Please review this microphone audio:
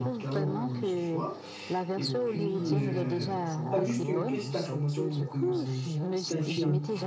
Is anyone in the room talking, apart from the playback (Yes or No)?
Yes